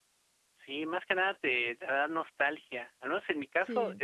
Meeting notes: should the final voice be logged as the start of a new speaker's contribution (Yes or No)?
No